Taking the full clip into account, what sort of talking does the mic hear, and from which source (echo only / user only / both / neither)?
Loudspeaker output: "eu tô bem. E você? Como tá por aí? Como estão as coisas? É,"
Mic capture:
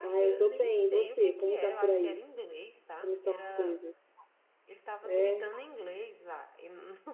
both